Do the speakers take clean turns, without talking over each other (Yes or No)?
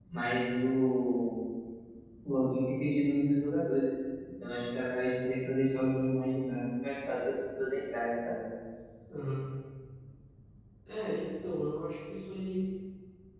Yes